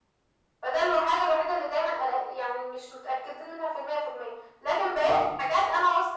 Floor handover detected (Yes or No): No